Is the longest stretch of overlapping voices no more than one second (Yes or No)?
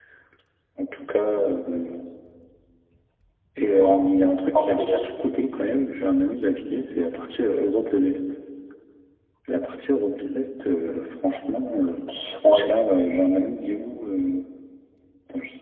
No